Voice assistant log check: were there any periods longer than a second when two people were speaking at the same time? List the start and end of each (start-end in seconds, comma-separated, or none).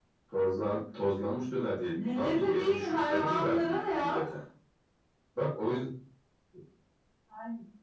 2.0-4.2